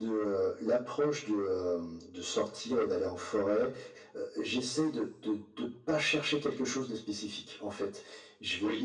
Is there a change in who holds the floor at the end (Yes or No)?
No